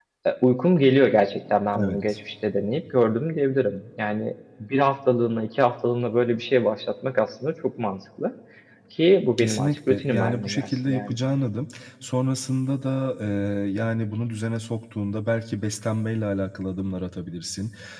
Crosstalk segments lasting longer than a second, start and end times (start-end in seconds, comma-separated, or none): 9.4-11.2